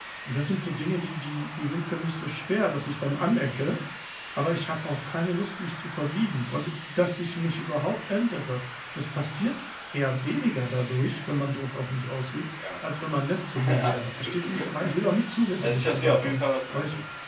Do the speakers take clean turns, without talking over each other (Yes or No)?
No